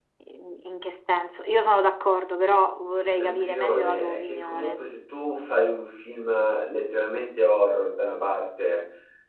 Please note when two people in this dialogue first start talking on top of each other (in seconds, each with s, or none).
2.9 s